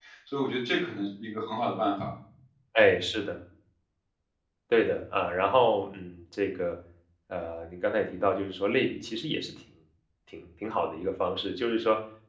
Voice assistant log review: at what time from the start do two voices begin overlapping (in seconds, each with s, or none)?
none